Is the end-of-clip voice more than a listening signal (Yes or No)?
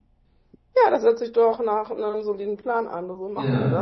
Yes